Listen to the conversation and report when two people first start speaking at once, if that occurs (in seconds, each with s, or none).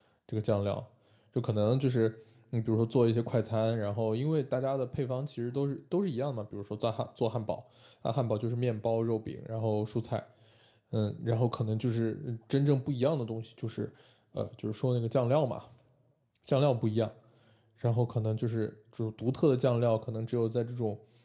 none